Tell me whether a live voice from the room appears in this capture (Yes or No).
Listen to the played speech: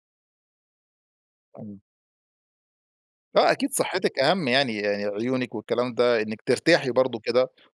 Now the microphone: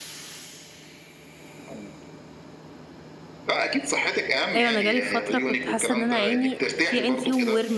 Yes